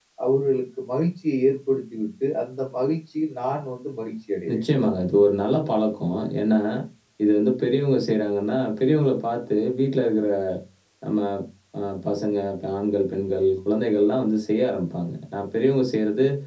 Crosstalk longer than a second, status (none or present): none